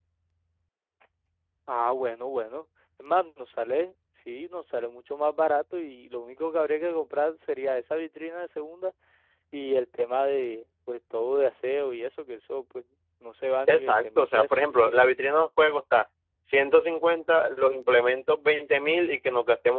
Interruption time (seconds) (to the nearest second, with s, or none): 14 s